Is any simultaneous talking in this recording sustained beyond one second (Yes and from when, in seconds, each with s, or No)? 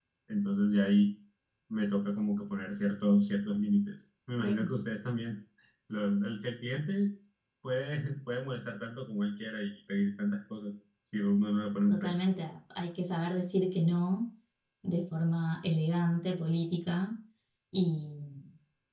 No